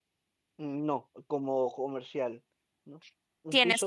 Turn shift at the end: Yes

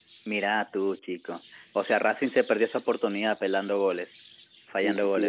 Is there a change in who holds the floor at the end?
Yes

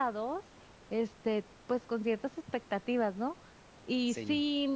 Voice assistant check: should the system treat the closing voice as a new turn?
No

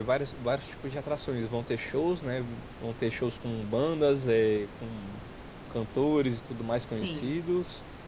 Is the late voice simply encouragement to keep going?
Yes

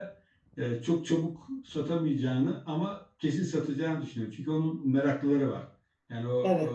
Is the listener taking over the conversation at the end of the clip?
No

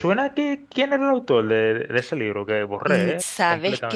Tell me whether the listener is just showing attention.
No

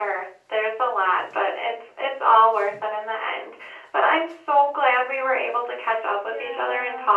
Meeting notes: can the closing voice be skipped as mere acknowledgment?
Yes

